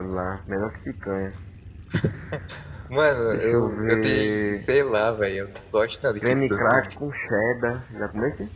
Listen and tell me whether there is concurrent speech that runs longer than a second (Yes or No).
Yes